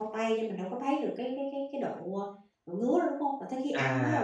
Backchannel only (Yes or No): No